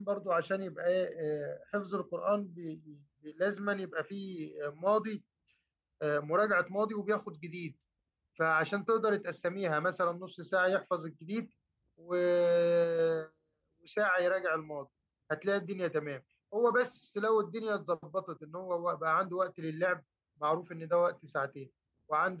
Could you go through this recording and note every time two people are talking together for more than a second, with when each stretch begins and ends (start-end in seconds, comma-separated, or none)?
none